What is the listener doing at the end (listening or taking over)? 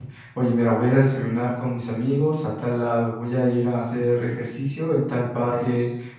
listening